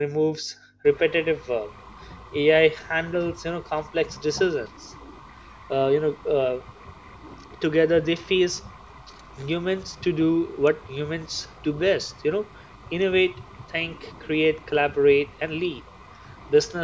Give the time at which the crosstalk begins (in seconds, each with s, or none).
none